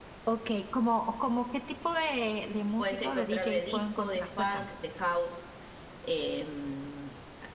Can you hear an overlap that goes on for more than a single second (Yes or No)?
Yes